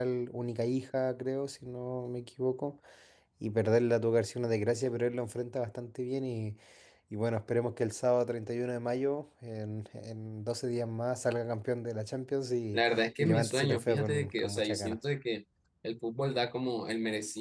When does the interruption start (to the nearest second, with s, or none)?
13 s